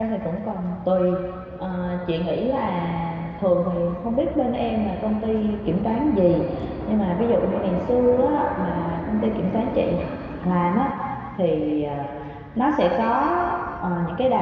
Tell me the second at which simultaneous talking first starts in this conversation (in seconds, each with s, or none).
none